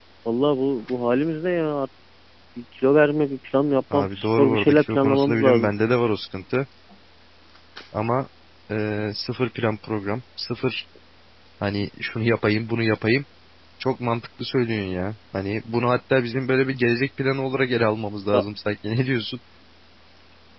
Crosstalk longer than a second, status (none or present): present